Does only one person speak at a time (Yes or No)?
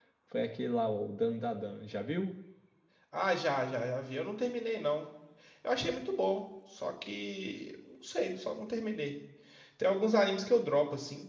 Yes